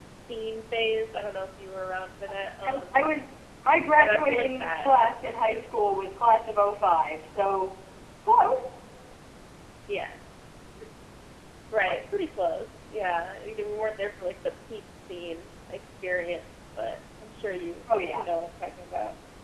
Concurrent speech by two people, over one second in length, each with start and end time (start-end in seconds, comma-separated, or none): 4.0-5.9